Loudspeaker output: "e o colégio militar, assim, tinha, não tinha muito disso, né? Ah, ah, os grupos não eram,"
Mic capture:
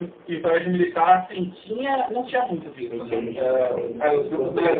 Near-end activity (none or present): present